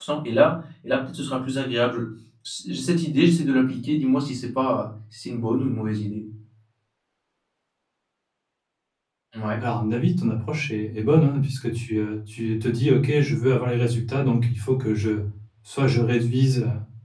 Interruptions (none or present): none